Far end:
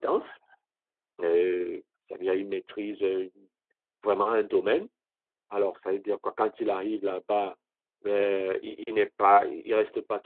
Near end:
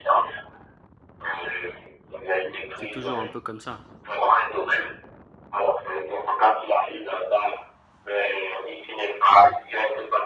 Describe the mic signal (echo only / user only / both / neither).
both